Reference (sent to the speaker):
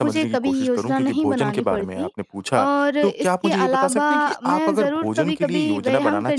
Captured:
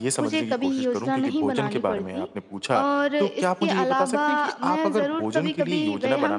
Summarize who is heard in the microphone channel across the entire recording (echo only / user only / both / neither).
echo only